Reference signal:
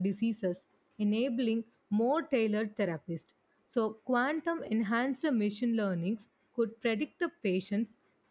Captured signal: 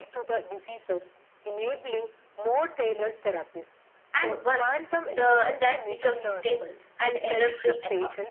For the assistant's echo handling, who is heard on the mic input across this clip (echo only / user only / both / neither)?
both